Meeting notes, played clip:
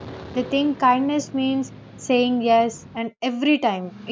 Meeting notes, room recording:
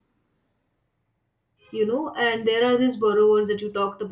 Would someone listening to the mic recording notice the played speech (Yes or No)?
No